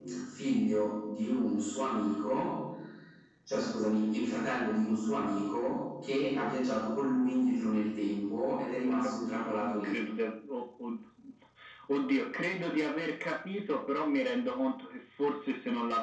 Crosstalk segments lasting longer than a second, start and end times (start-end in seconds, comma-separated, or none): none